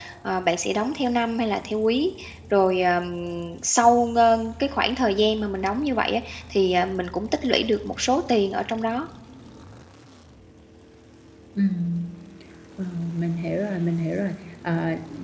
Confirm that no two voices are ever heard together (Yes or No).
Yes